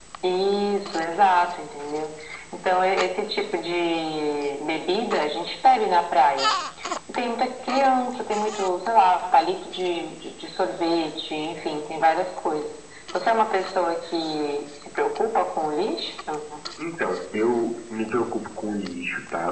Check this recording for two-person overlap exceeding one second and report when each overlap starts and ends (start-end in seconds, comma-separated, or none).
none